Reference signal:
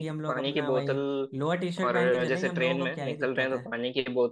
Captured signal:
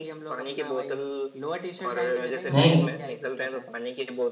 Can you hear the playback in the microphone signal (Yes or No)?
Yes